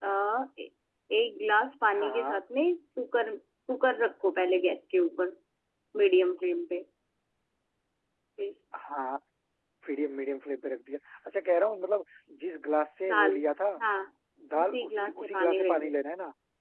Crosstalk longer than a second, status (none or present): present